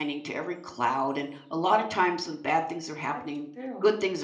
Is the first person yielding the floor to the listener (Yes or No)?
No